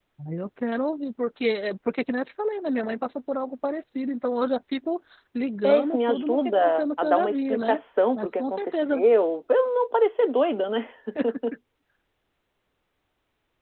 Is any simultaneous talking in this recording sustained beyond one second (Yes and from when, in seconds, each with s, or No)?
Yes, from 5.6 s